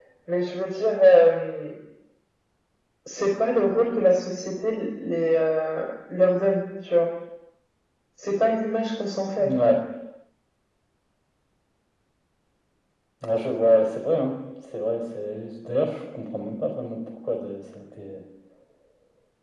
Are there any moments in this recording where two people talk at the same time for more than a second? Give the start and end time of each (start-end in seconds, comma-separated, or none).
none